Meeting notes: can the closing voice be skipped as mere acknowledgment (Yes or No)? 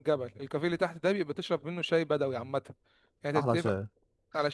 Yes